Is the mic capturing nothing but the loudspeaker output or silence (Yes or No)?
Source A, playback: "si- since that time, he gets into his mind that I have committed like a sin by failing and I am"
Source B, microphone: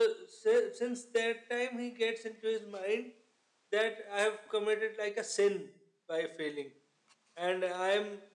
Yes